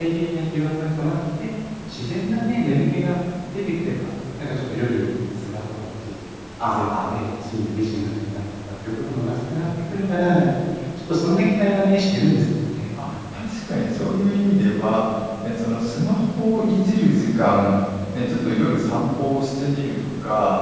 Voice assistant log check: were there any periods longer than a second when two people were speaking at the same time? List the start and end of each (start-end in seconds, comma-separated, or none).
none